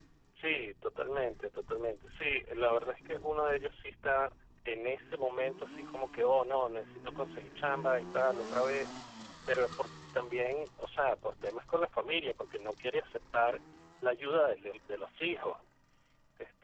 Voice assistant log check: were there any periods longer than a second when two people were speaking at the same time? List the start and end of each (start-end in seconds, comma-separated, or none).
none